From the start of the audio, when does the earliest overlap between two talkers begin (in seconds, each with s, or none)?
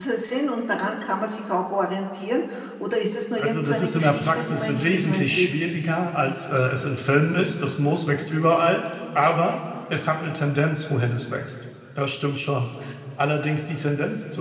3.4 s